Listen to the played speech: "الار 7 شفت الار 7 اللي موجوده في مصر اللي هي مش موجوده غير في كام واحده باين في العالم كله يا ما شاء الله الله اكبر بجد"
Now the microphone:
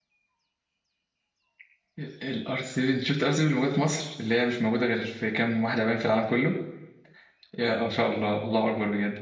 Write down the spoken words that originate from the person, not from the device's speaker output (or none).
none